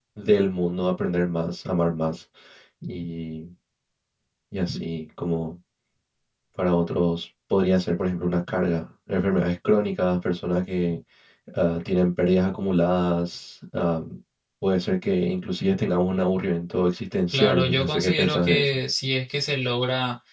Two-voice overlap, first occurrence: 17.3 s

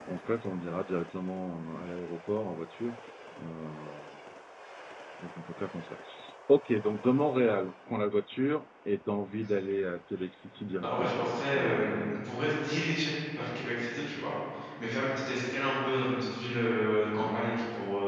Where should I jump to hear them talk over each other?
10.8 s

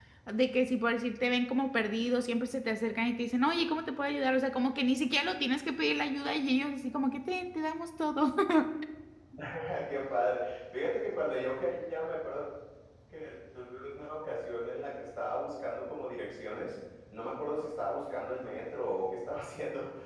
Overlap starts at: none

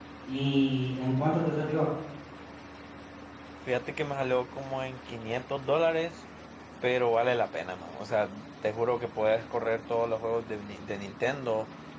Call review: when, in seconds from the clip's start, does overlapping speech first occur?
none

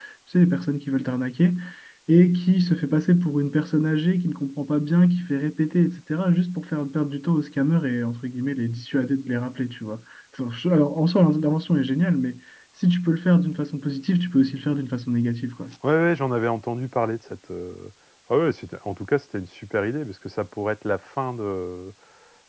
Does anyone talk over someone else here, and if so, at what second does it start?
none

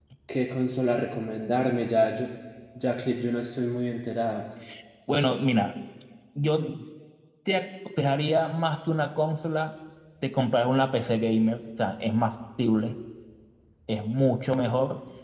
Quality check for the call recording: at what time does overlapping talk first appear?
none

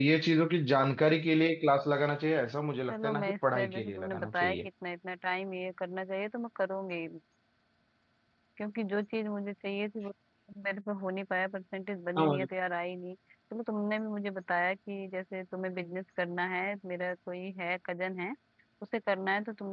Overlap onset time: 2.9 s

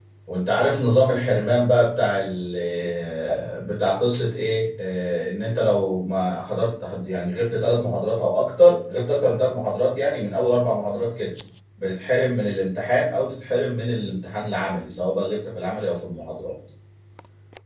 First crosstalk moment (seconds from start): none

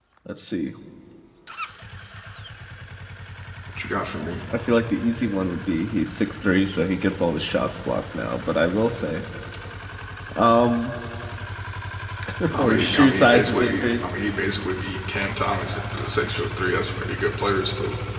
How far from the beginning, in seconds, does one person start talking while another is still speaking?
12.6 s

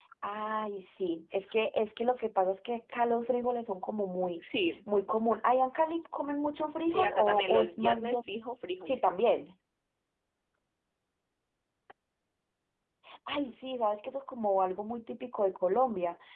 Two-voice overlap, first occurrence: 6.9 s

